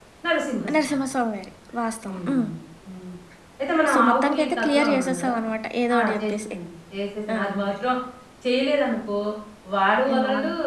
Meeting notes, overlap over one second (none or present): present